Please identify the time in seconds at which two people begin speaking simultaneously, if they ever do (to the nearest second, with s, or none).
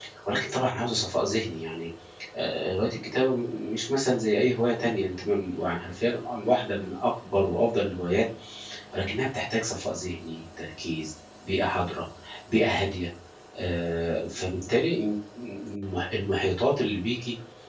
none